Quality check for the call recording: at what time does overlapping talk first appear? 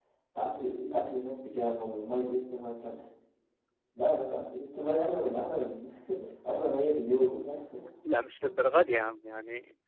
none

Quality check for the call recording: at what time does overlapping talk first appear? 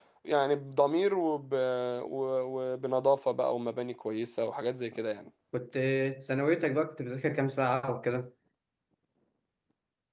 none

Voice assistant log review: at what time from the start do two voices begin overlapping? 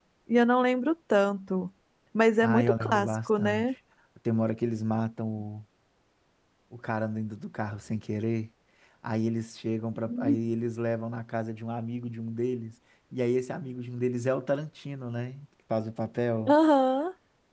2.4 s

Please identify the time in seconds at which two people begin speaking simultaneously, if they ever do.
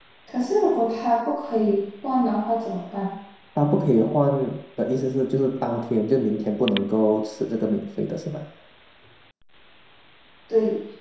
none

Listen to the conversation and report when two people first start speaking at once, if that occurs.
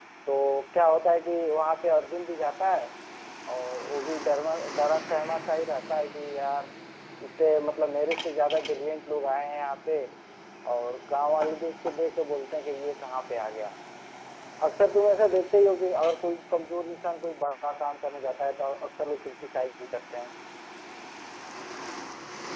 none

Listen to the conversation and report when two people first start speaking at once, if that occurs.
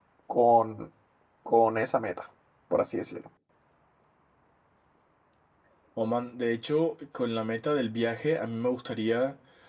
none

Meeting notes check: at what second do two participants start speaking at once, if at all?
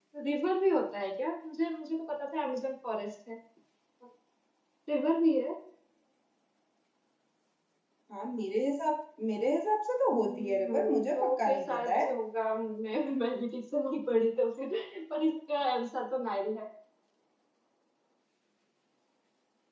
10.1 s

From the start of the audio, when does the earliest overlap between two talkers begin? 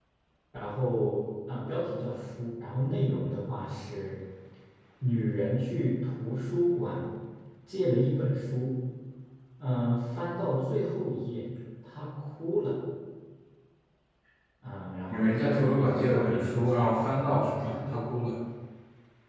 15.1 s

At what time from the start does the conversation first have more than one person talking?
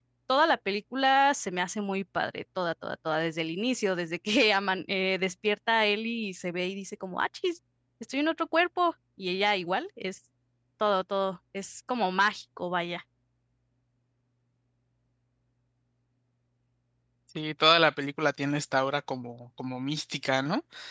none

